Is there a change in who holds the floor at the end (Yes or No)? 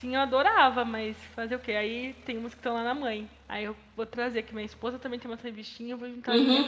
Yes